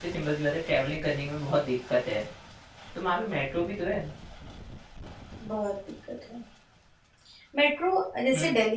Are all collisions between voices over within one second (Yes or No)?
Yes